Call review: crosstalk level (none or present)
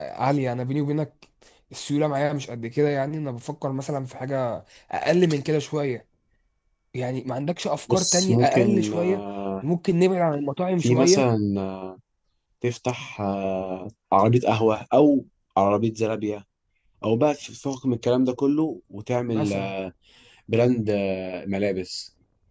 present